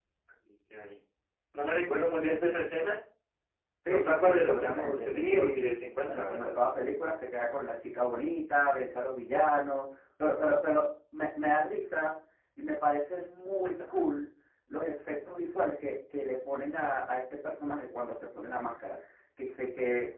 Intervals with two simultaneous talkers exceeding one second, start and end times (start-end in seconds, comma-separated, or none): 3.9-5.7